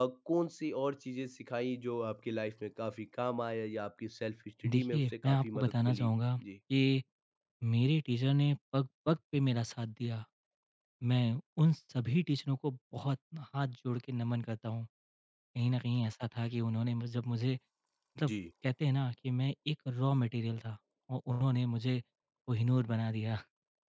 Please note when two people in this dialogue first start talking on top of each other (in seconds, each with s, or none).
4.6 s